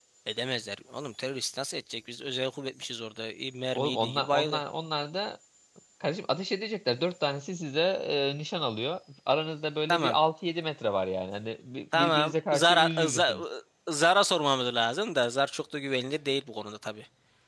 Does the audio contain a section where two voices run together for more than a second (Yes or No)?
Yes